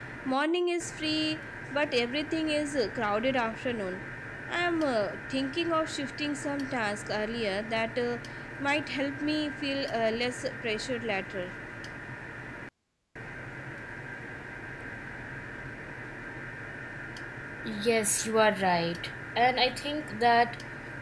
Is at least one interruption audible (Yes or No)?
No